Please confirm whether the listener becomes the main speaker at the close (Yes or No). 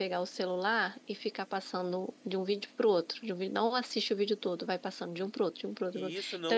Yes